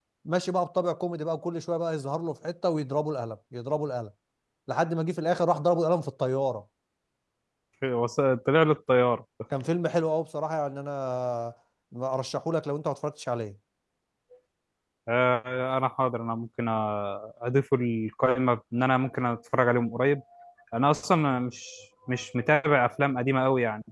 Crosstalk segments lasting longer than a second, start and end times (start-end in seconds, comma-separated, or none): none